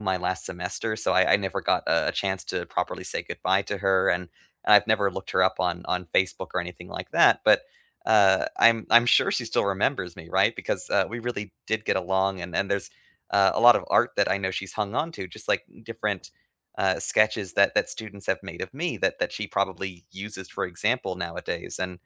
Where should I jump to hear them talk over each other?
none

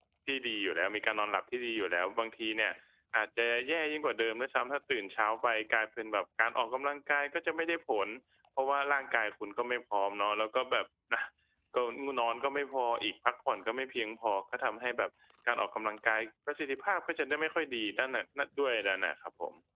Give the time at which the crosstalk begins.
none

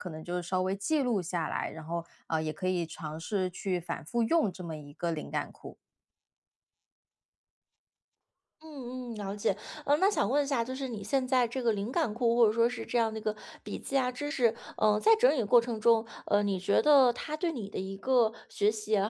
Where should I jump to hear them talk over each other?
none

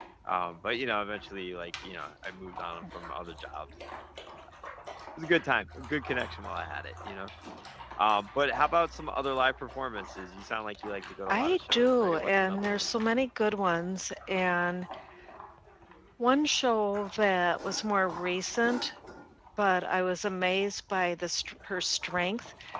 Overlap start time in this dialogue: 11.3 s

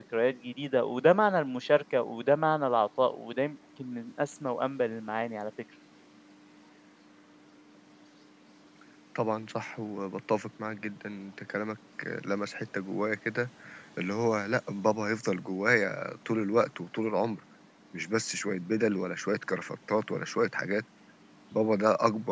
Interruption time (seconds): none

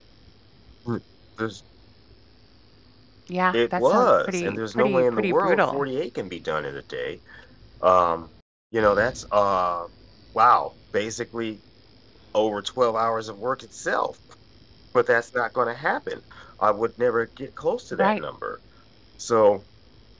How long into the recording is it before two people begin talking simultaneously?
3.5 s

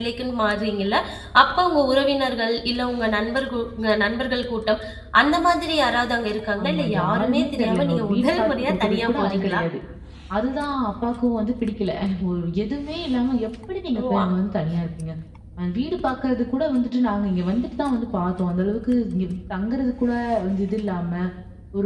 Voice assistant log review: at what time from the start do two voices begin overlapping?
6.6 s

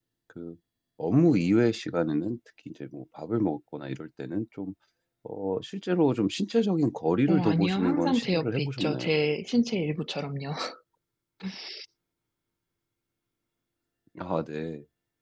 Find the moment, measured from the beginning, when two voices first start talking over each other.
7.3 s

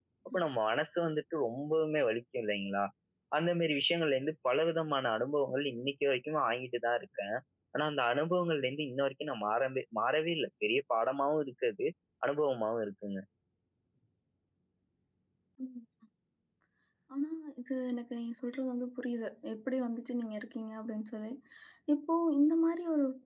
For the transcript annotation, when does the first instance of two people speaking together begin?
none

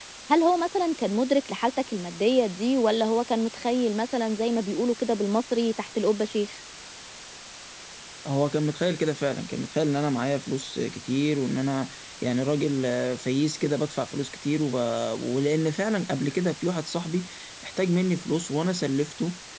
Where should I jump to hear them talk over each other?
none

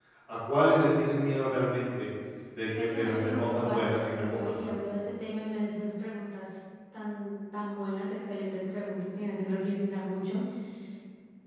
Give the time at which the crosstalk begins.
2.6 s

